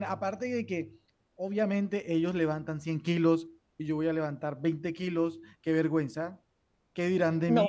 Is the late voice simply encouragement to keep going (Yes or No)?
No